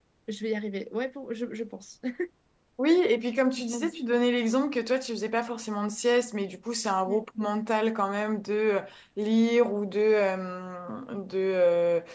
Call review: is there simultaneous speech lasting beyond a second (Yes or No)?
No